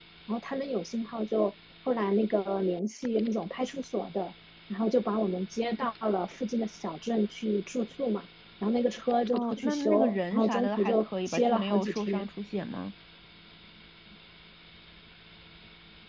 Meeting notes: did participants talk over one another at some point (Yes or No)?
Yes